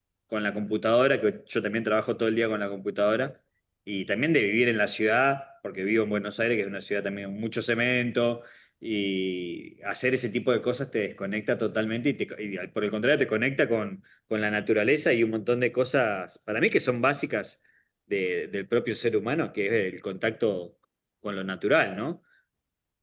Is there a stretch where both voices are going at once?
No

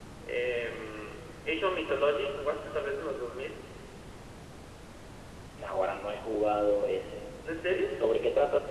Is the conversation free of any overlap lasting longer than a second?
Yes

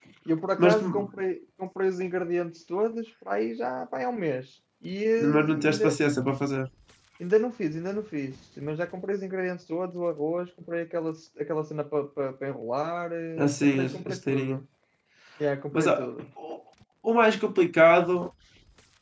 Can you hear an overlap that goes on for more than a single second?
Yes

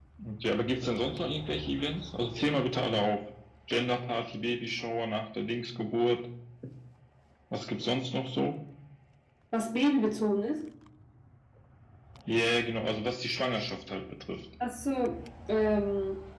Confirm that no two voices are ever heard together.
Yes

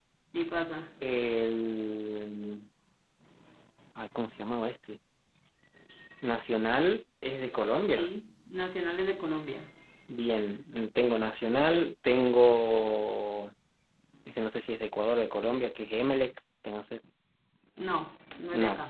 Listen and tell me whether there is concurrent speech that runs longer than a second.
No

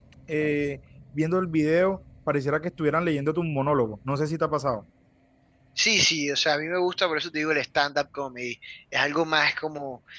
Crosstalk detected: No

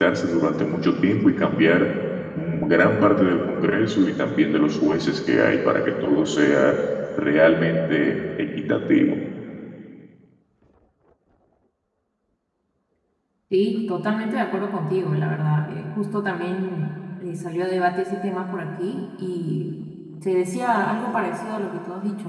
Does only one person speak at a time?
Yes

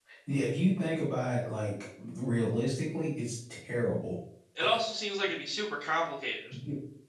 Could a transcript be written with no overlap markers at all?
Yes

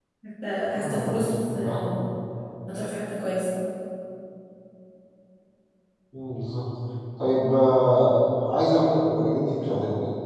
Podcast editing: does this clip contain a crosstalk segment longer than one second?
Yes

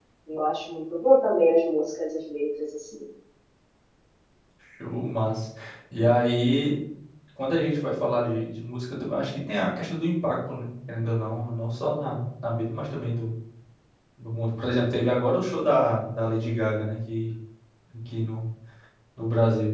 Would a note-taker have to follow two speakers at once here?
No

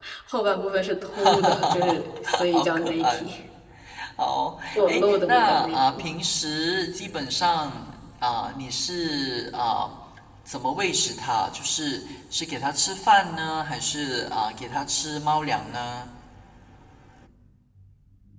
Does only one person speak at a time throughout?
No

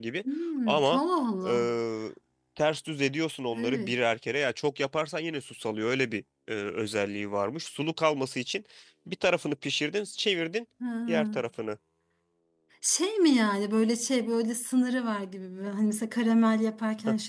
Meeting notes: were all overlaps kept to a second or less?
Yes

